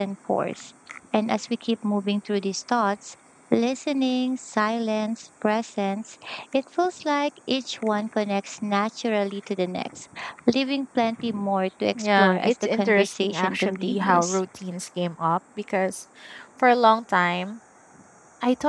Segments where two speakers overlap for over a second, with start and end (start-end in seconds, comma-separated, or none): 11.9-14.4